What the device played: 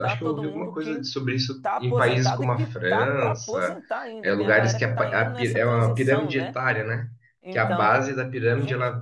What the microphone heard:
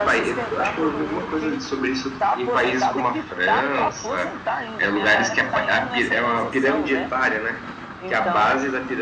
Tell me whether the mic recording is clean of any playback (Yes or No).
No